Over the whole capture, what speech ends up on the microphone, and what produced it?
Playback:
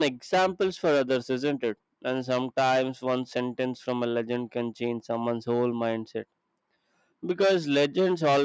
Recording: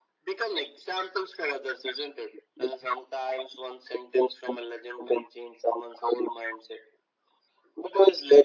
echo only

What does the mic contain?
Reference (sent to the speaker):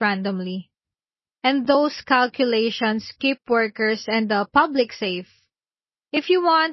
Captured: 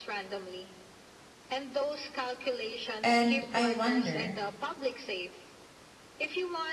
both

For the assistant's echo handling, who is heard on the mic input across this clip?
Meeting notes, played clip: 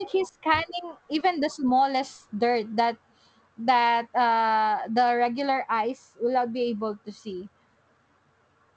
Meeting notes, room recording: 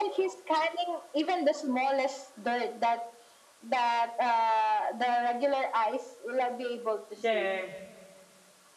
both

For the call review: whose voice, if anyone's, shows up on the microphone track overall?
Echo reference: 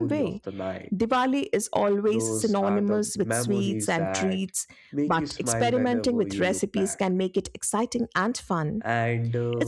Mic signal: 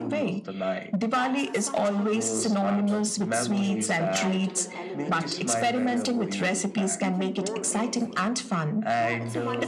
both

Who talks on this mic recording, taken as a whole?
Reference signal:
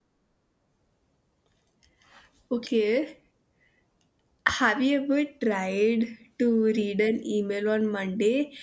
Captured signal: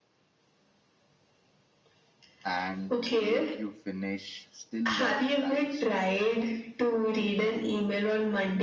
both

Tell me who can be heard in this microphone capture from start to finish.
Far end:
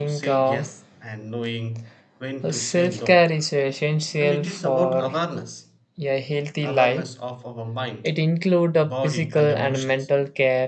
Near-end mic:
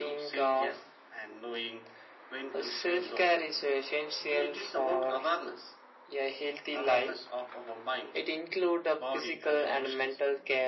echo only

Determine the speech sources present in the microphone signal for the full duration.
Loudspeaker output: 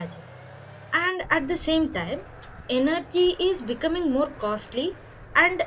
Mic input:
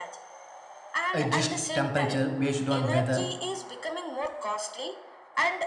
both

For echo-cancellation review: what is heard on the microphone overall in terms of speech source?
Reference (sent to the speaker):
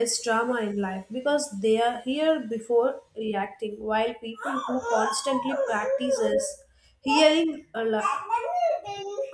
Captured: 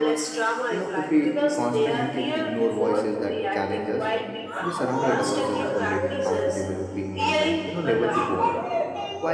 both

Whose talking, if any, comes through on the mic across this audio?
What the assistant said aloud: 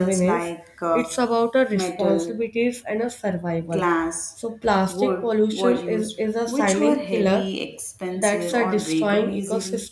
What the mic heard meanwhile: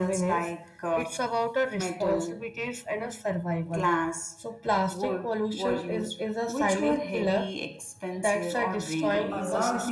both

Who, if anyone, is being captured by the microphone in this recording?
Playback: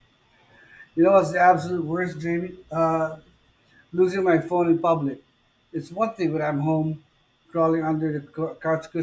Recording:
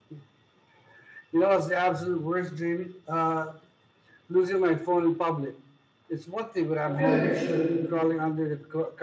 both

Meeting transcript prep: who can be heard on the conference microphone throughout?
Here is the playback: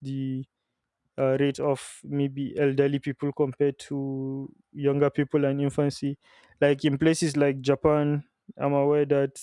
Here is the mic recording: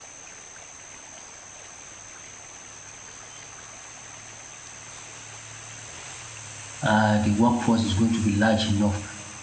user only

